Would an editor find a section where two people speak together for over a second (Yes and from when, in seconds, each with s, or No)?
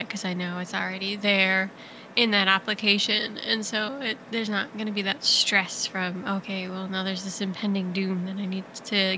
No